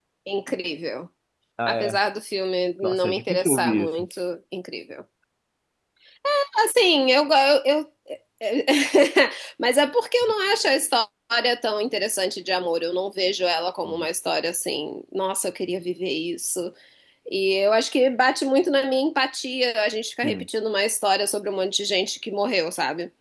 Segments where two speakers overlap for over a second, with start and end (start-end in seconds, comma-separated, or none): 2.8-4.0